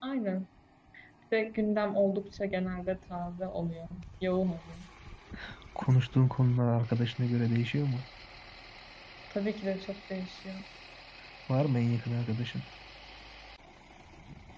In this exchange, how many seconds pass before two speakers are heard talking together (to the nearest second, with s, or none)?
none